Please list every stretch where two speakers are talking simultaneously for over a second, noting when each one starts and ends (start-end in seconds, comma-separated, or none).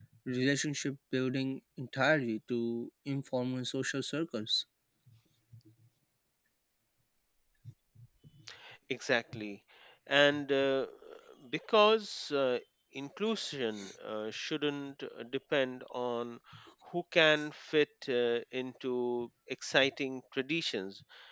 none